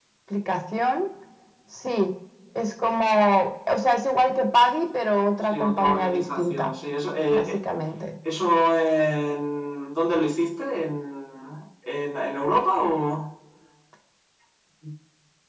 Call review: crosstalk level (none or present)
present